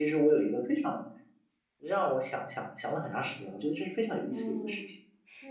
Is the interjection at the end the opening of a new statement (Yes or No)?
Yes